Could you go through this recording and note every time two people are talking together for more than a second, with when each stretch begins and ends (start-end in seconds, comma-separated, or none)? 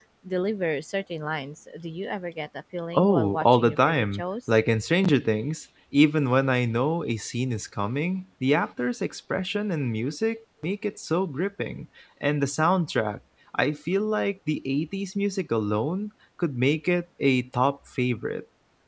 2.9-4.5